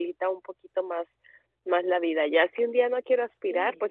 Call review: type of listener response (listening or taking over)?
listening